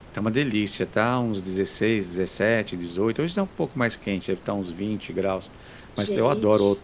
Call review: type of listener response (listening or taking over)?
listening